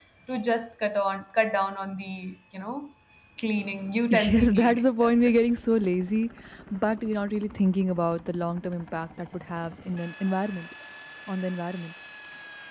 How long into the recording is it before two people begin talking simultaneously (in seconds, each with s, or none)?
4.1 s